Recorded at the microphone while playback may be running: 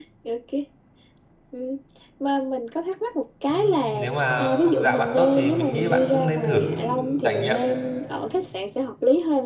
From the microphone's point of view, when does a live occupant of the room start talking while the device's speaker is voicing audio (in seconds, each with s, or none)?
3.5 s